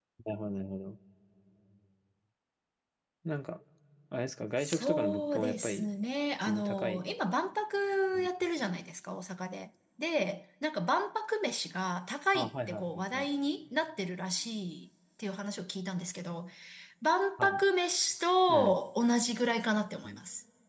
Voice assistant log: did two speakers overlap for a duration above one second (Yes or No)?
Yes